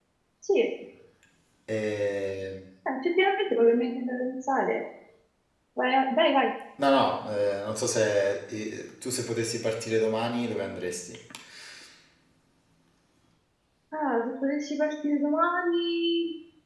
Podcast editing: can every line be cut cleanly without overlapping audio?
Yes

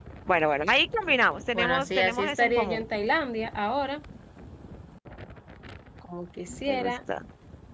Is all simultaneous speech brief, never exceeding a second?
No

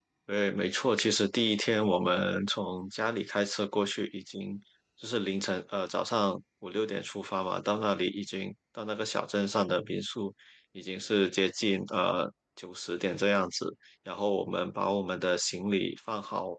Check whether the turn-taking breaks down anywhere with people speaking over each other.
No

